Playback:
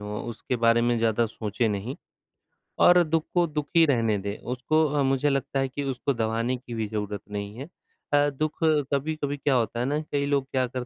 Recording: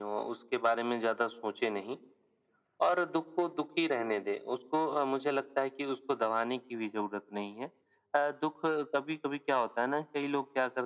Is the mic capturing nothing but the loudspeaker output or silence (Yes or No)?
Yes